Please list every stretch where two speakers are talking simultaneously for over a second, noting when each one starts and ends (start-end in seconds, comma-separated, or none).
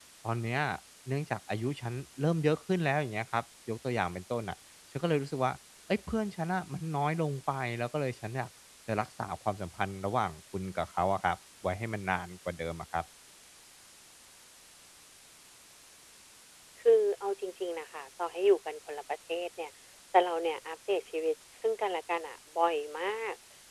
none